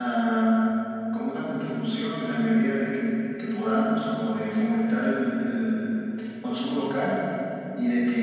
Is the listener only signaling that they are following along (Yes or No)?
Yes